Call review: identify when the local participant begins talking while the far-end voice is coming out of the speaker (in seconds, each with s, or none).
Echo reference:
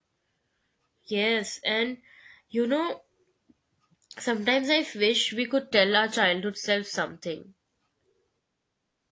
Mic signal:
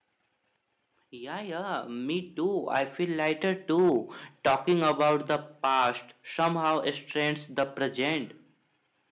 1.1 s